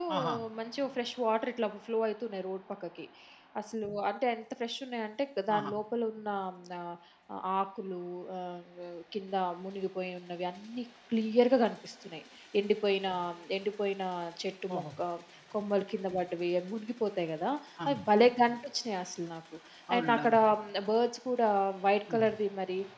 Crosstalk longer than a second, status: none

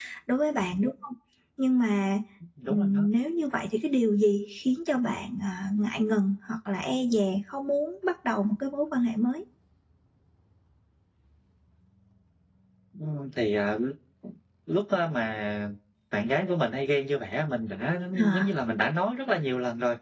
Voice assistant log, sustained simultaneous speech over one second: none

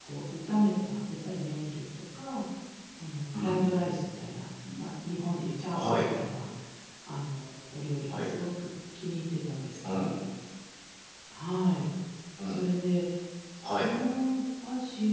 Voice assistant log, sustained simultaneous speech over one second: none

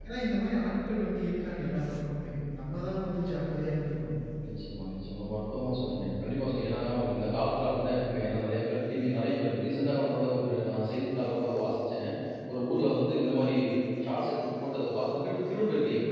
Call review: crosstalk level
none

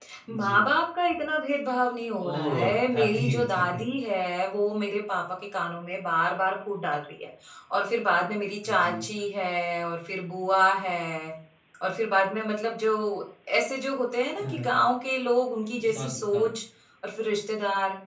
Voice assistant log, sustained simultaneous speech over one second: present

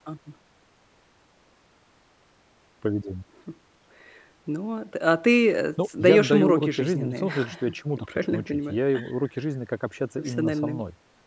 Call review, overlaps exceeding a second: present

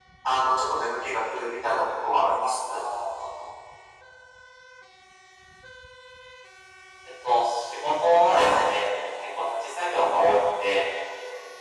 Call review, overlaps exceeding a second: none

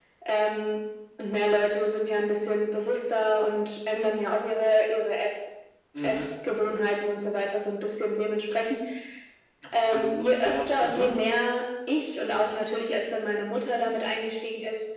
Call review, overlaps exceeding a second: present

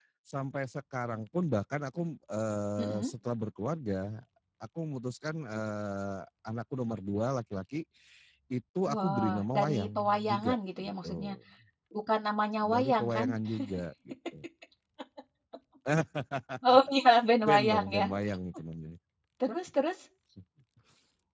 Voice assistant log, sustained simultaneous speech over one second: present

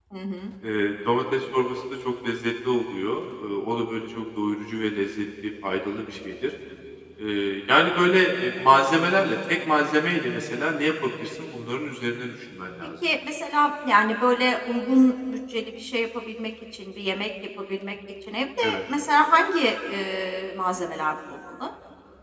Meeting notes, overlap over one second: none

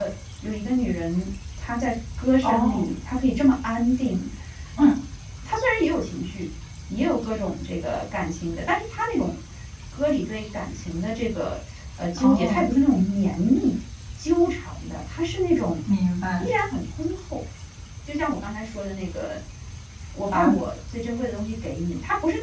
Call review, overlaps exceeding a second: none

